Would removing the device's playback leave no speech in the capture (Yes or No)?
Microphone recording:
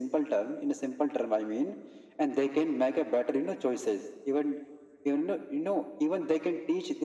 Yes